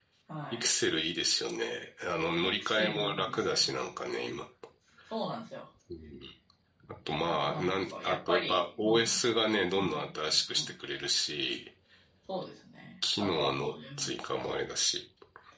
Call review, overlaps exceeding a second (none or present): present